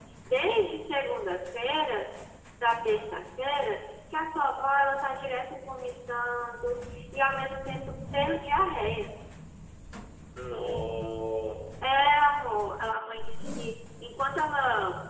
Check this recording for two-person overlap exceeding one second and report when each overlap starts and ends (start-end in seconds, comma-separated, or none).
none